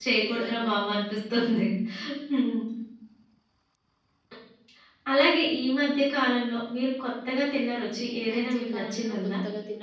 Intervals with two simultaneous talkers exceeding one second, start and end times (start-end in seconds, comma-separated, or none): 8.0-9.3